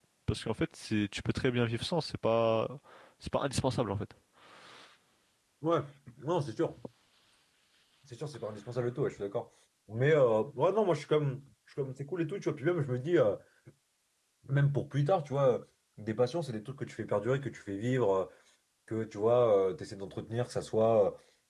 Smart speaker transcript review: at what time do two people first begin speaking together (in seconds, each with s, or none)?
none